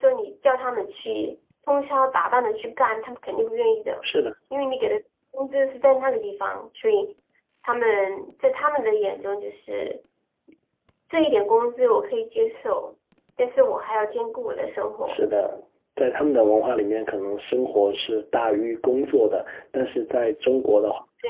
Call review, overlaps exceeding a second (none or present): none